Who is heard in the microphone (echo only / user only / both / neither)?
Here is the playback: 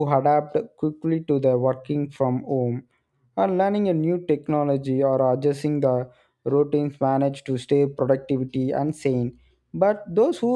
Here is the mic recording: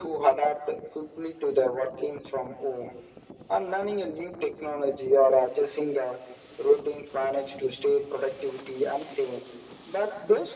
echo only